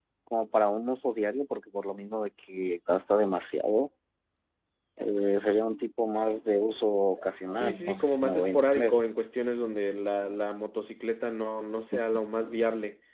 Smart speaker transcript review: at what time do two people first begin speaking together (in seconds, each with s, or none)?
7.5 s